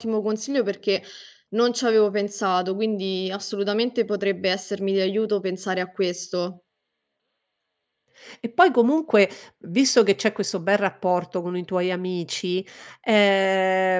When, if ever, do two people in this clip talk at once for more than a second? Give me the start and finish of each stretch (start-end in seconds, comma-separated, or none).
none